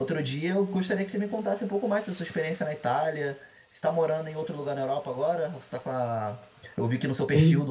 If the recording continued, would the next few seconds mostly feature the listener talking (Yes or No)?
No